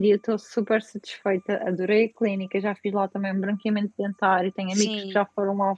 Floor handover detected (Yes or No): No